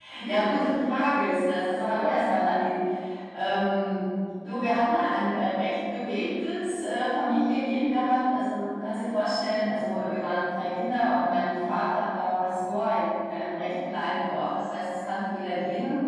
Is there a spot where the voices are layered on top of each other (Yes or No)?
No